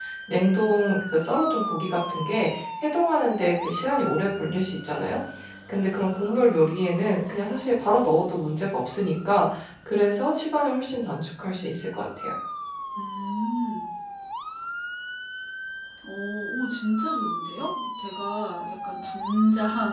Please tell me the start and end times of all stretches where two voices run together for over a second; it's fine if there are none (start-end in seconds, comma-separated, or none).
none